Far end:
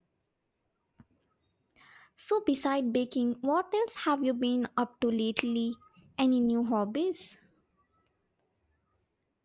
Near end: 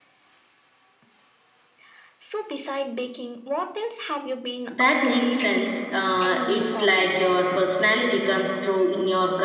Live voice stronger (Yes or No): Yes